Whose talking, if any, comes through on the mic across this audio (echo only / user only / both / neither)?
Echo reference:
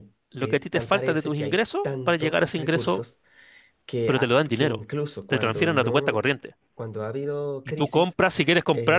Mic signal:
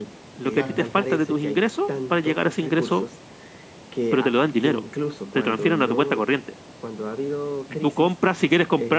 both